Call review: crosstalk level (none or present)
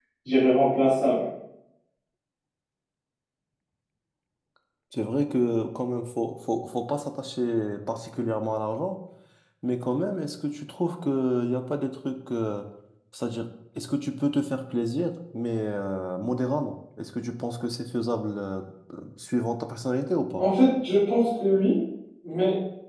none